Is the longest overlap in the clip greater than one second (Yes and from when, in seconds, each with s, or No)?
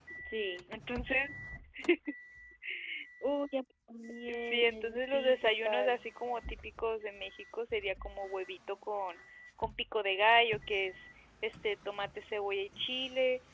Yes, from 4.3 s